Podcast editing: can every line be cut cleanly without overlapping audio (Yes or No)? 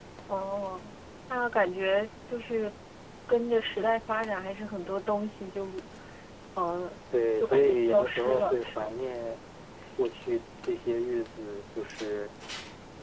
No